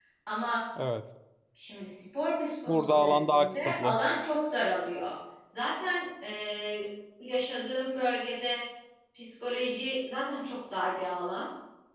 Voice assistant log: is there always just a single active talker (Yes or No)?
No